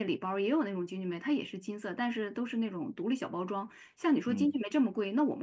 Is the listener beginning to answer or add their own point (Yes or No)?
No